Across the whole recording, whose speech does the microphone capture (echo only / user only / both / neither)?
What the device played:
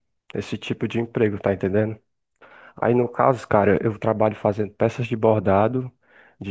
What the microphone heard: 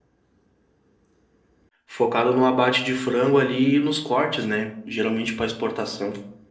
user only